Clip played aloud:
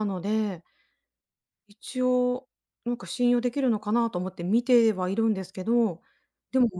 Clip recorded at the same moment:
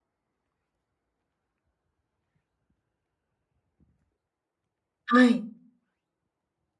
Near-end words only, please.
はい。

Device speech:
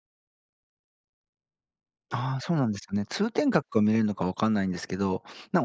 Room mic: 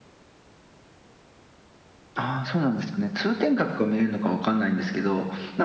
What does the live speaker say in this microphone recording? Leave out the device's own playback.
none

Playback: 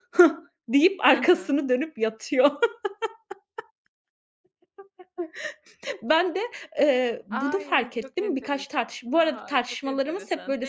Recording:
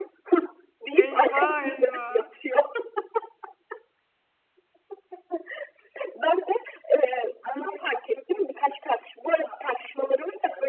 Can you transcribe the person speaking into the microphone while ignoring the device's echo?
Eyvah, eyvah.

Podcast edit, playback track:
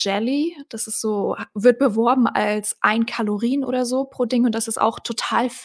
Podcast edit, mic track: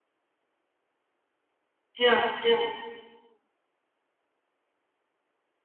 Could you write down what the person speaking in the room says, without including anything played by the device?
ja, ja.

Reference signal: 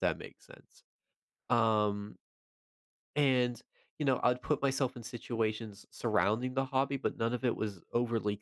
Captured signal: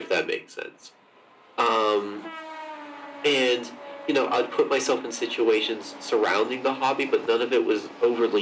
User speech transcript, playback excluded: none

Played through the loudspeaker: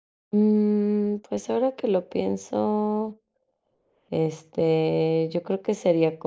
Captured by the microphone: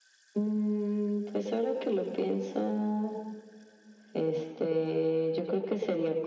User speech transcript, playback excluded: none

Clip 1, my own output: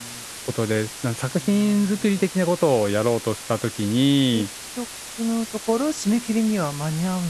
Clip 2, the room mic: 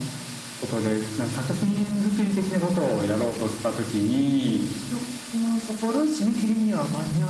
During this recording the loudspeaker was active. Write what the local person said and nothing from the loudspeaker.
none

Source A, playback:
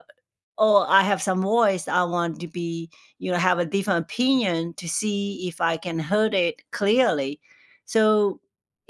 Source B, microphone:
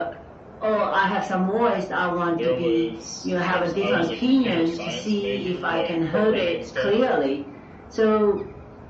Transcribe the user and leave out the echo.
there was like so I was a computer science major, like programming and stuff,

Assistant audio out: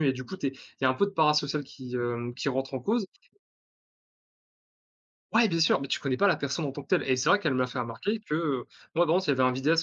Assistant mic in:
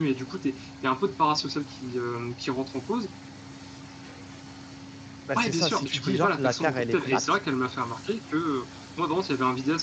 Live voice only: bah, c'est ça, si tu dis genre: «La terre elle est plate»,

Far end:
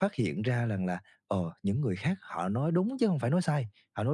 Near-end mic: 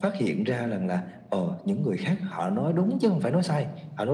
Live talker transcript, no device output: none

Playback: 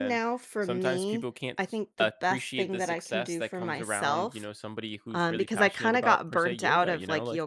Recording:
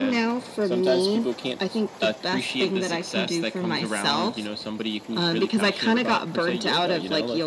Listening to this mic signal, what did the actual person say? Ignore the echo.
none

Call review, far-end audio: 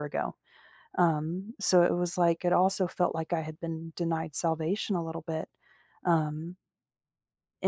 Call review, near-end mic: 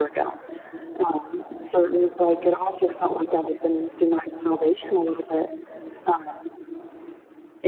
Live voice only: none

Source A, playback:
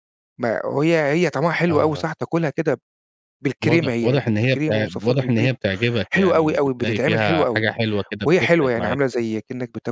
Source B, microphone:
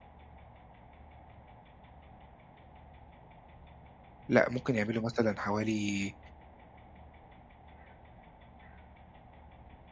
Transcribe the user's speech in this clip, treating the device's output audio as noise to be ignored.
لأ، ممكن يعملوا مثلًا حوالي

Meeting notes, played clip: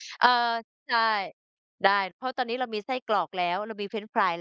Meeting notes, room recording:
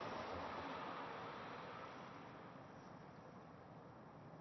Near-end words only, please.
none

